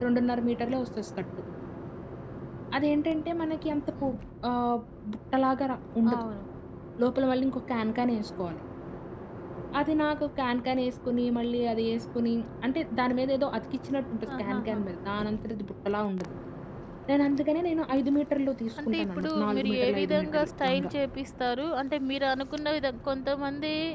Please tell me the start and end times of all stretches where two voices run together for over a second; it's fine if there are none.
18.9-20.9

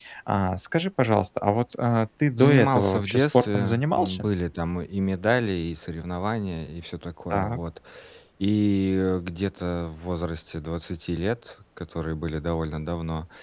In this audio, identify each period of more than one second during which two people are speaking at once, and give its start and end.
2.4-4.3

